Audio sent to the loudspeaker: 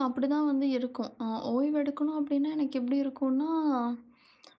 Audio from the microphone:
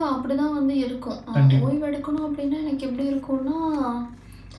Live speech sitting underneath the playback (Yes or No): No